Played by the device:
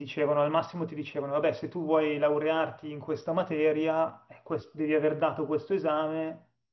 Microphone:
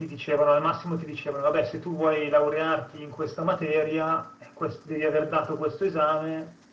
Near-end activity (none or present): none